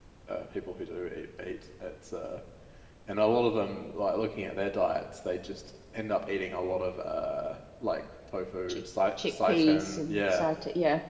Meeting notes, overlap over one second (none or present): present